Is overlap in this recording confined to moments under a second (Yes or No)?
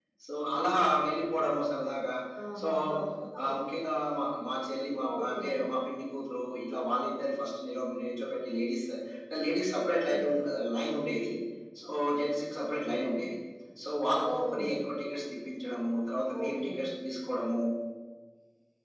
Yes